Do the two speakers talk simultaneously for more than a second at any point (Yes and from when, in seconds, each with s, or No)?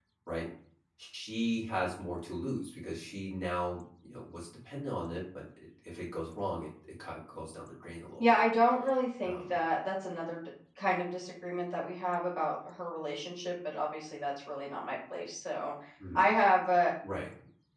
No